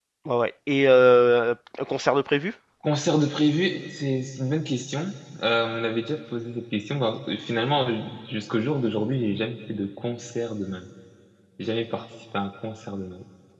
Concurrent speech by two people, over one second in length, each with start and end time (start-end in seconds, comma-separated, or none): none